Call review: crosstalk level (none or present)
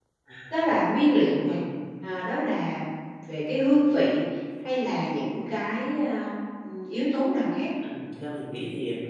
none